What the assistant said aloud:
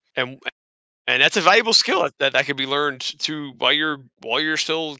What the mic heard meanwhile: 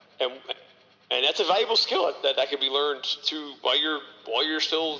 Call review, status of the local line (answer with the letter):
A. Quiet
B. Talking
A